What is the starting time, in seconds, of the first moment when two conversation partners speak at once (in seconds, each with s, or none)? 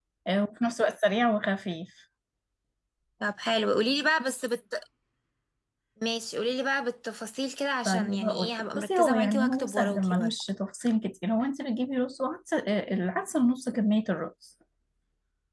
7.8 s